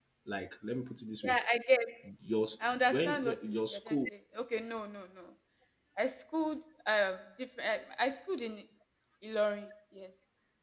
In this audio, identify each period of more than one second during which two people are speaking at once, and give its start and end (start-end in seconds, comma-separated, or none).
2.6-4.0